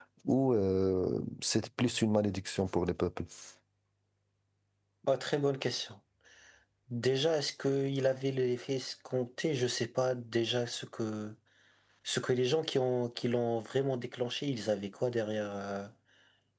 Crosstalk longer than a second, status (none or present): none